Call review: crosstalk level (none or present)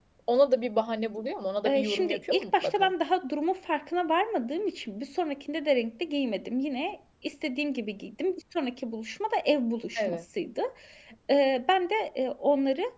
present